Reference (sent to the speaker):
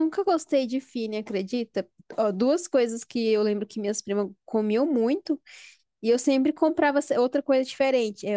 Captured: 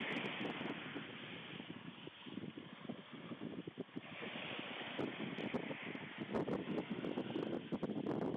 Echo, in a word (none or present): none